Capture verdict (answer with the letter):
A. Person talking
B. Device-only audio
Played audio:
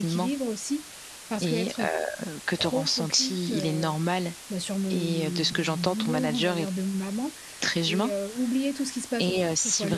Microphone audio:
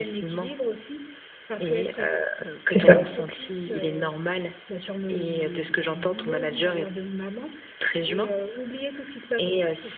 A